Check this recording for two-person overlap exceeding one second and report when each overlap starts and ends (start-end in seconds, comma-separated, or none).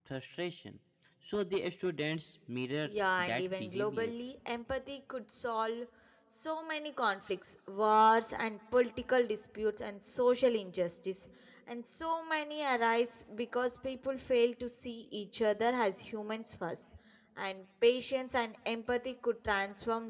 2.9-4.1